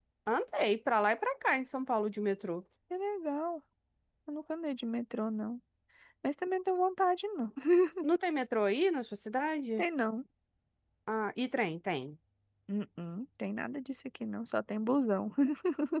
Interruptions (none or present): none